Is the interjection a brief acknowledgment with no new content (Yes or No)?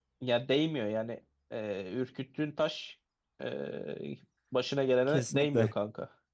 No